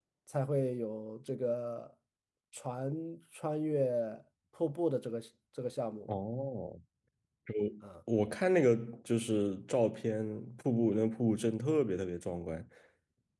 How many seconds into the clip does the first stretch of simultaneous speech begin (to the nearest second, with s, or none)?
none